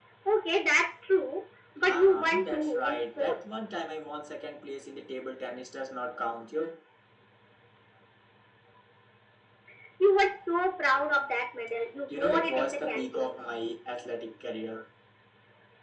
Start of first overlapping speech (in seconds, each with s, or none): 1.8 s